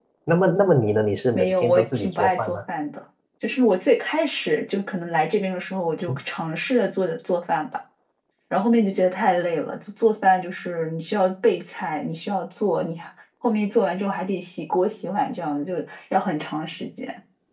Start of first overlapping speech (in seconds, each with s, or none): 1.3 s